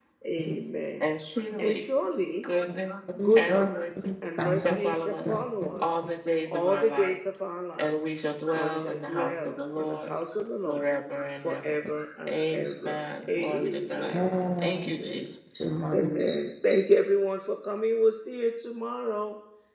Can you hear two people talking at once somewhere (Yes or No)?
Yes